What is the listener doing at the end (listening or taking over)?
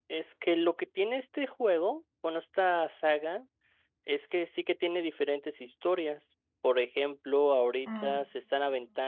listening